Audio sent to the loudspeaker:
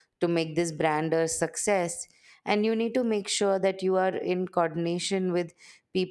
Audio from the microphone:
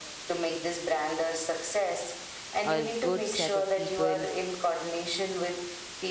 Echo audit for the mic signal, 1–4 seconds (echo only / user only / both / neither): both